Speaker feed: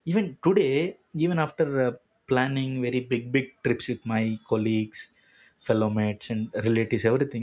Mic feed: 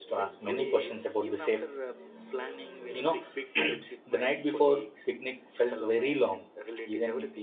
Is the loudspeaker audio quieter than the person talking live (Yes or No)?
Yes